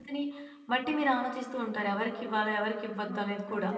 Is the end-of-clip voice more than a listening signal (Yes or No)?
Yes